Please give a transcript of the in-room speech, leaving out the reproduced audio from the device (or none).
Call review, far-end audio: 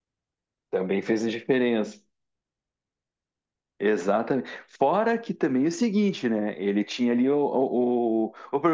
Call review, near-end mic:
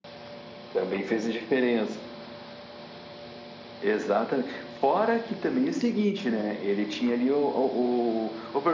none